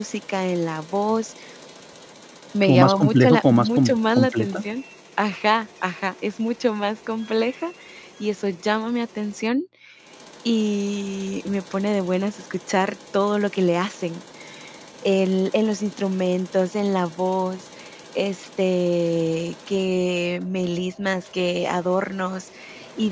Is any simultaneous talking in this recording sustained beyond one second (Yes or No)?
Yes